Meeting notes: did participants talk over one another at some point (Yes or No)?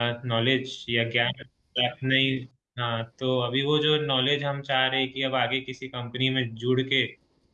No